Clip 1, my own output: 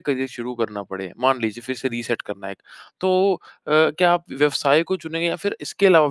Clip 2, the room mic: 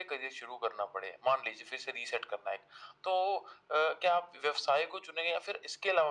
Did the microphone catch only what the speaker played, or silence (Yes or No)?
Yes